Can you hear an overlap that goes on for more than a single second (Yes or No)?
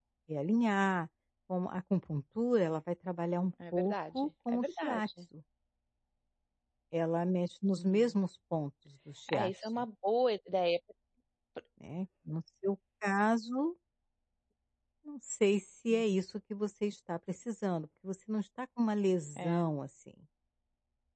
Yes